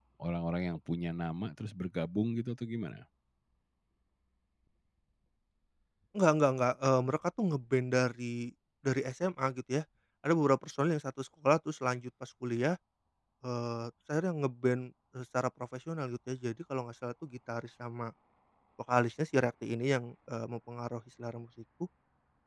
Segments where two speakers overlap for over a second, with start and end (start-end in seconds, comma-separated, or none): none